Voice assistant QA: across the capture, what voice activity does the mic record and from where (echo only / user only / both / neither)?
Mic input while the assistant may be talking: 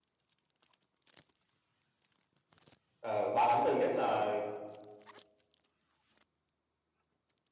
user only